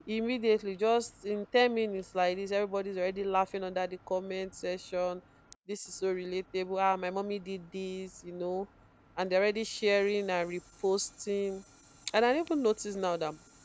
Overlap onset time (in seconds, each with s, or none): none